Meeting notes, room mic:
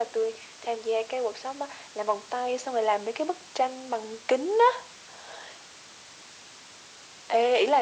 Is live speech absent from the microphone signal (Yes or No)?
Yes